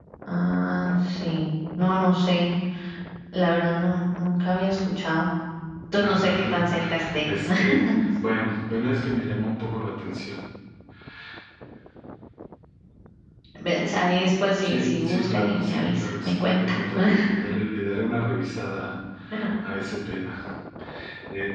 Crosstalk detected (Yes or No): Yes